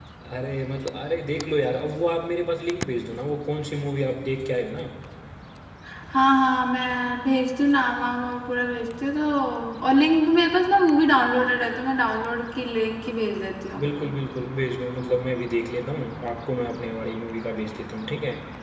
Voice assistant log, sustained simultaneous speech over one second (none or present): none